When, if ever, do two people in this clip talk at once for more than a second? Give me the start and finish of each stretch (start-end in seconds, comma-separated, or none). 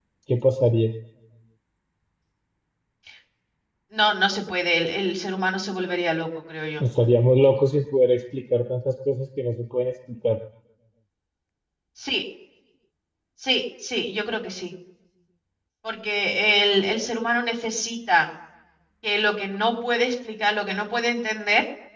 none